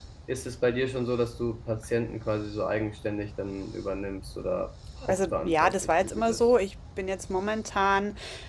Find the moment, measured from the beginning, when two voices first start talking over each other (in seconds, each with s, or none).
5.0 s